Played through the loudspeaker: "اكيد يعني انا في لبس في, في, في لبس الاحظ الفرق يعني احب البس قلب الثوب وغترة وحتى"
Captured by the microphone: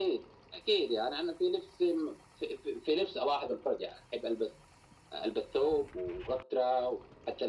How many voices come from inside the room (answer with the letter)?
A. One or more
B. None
B